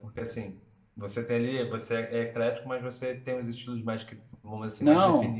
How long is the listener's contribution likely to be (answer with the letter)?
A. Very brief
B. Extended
B